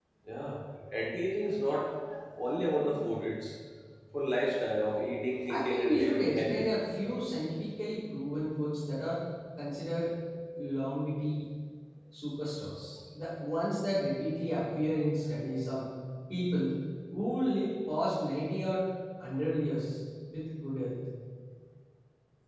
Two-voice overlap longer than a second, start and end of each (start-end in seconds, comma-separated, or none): 5.5-6.7